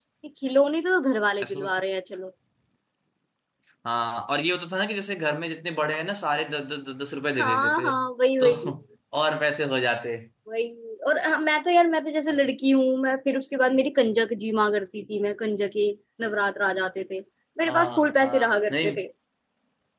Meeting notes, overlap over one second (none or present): present